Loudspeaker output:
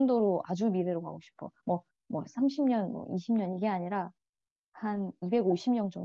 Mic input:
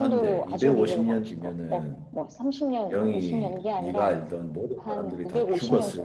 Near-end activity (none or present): present